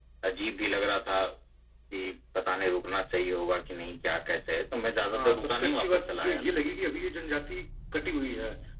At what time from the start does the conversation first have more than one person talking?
5.0 s

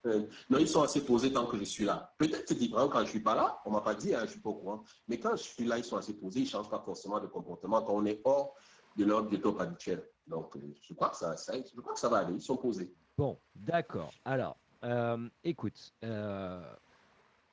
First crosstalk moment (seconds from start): none

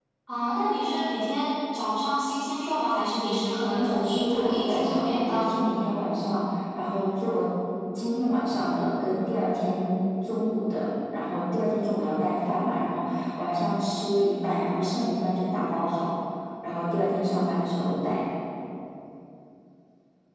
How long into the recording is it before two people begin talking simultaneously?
3.7 s

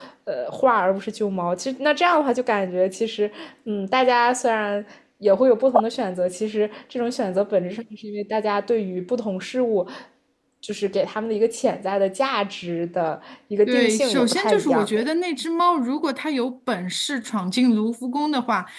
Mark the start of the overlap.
13.7 s

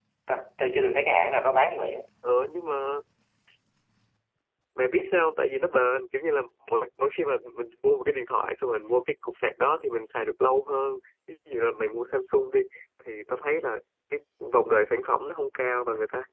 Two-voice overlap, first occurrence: none

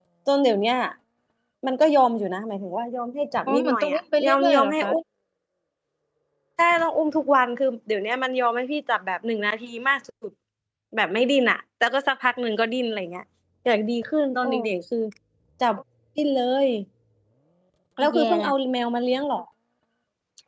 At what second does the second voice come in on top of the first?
3.5 s

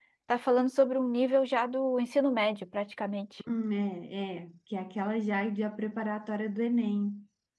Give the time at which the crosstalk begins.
none

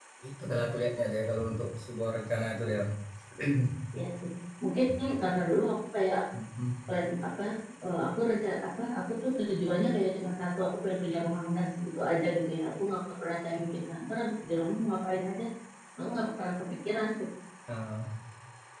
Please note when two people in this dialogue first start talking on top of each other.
none

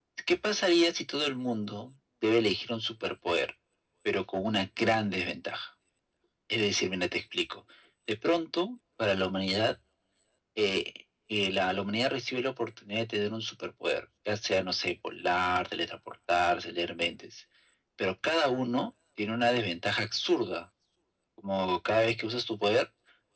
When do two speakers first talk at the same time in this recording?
none

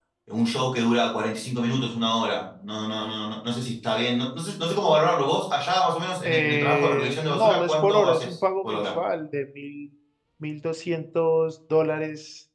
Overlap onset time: 6.2 s

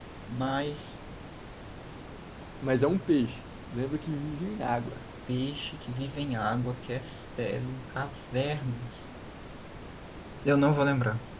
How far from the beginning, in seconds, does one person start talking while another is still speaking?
none

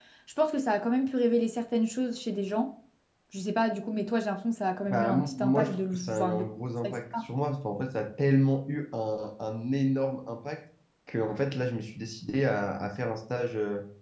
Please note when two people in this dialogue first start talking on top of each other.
4.9 s

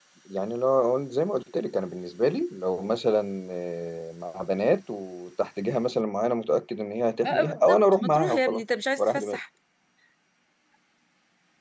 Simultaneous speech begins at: 7.2 s

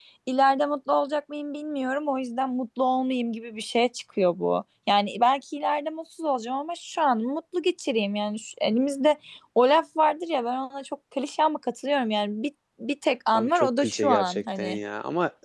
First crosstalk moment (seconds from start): 13.3 s

